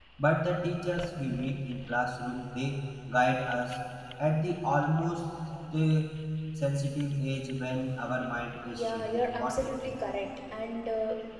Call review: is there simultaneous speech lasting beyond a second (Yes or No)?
Yes